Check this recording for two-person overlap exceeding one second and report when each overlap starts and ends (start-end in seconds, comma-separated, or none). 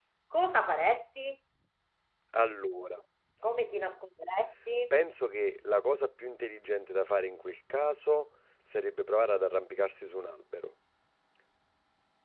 none